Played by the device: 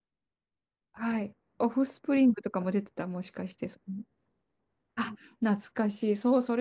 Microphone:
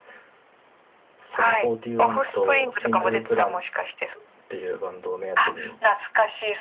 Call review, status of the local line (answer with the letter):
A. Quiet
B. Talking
B